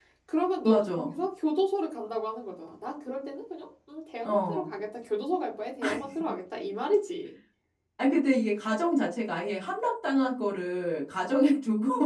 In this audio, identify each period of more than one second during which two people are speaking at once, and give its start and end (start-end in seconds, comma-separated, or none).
none